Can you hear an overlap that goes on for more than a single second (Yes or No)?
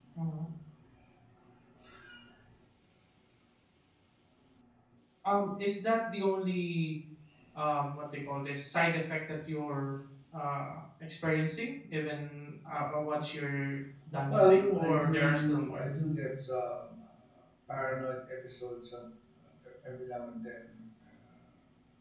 Yes